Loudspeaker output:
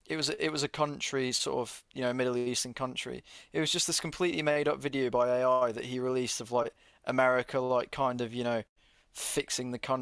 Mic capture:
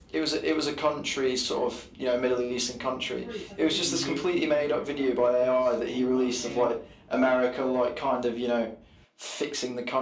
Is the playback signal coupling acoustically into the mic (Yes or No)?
Yes